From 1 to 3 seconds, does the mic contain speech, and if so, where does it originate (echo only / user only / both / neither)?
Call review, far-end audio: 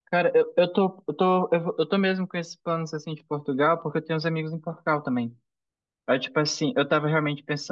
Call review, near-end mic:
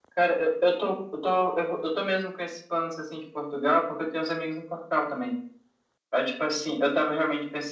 echo only